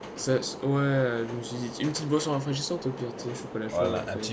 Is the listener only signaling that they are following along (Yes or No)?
No